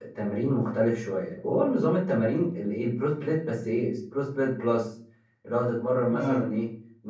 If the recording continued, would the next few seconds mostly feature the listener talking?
No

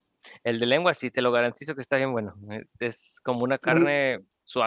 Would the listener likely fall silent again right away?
Yes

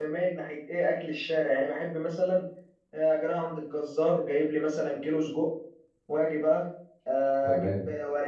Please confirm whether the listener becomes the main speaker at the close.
No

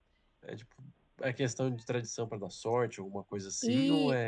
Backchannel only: No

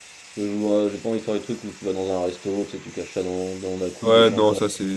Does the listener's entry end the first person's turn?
Yes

